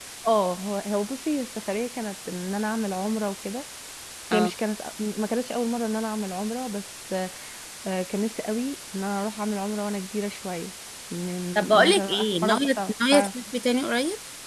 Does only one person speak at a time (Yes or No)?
No